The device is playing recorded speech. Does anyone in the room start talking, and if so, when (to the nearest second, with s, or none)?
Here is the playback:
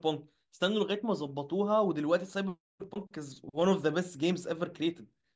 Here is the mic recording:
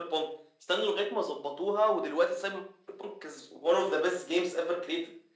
none